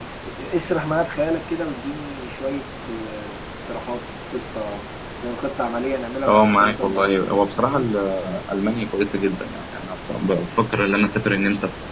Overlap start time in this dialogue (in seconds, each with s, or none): 6.3 s